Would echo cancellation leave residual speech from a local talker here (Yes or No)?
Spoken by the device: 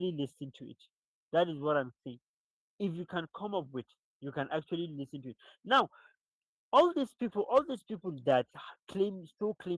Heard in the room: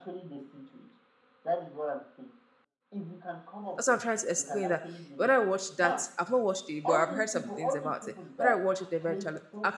Yes